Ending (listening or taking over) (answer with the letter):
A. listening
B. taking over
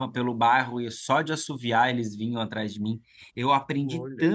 A